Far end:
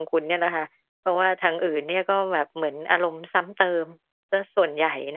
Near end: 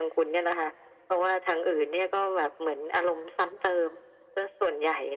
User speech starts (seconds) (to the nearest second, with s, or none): none